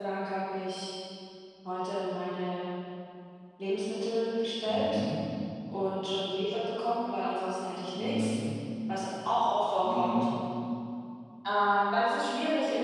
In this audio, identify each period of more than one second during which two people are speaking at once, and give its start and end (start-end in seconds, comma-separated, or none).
none